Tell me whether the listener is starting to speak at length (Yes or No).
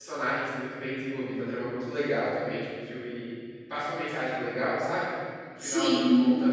No